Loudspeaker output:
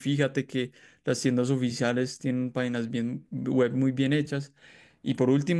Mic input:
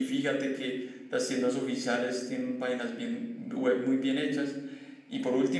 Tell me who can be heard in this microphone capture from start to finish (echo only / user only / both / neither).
echo only